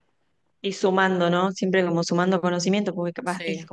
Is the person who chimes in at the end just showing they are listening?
Yes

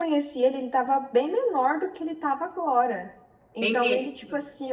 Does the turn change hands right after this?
No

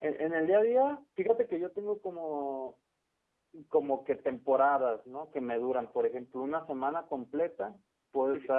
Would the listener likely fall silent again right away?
Yes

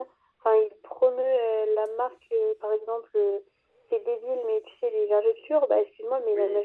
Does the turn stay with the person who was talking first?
Yes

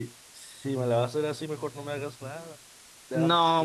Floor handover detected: Yes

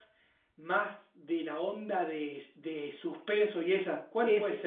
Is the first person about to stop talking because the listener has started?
Yes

